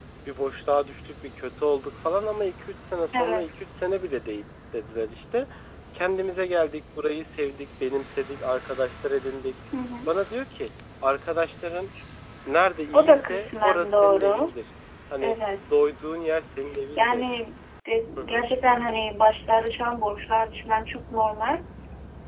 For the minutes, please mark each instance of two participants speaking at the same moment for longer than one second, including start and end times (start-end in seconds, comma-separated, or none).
12.9-14.5